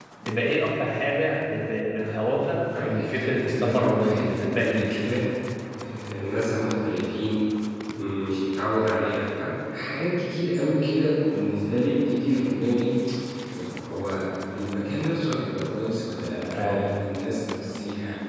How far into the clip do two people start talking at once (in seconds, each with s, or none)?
2.8 s